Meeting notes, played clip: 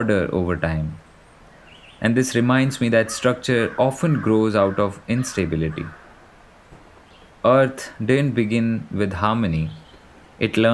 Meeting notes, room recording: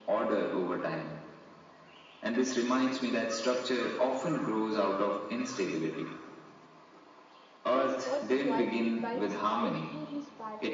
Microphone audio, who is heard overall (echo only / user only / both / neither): both